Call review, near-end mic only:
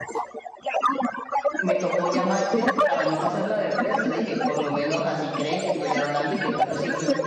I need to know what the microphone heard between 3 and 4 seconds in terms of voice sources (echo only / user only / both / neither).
both